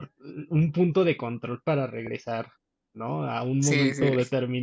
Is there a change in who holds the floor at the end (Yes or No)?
No